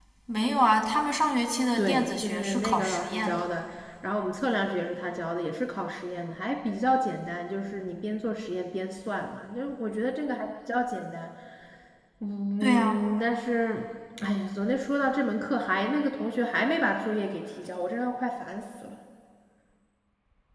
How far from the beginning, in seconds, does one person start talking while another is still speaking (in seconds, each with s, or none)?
1.8 s